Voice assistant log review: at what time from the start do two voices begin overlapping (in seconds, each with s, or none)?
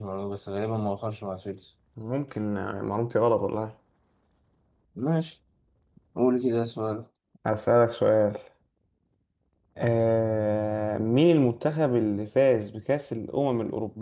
none